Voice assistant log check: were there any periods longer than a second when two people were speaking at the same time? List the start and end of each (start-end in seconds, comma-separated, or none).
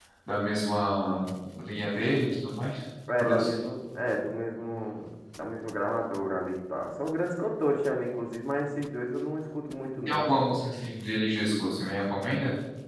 none